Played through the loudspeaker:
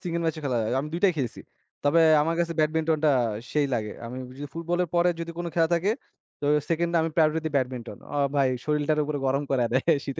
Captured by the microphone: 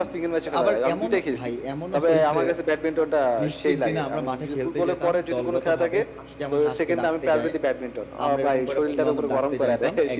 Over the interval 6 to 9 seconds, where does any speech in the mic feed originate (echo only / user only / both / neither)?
both